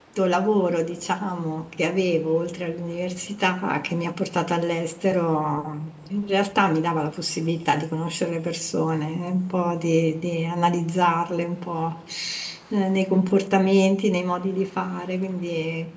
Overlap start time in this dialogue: none

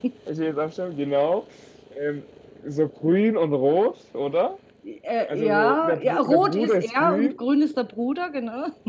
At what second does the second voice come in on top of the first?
5.3 s

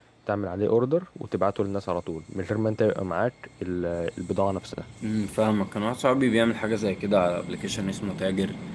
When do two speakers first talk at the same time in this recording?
none

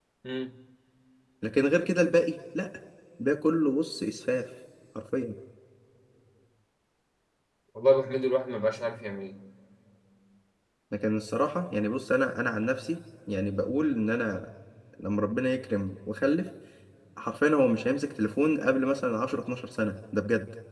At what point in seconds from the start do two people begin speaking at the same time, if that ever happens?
none

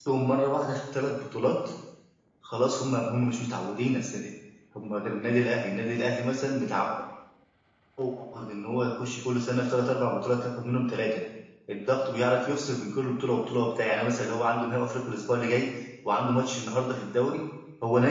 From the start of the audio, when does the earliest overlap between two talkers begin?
none

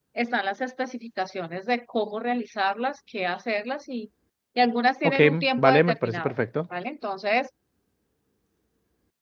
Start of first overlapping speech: 5.0 s

